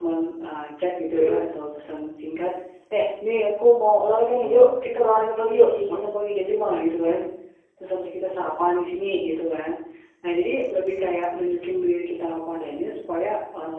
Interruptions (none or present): present